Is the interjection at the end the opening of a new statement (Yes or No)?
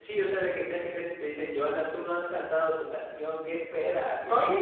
Yes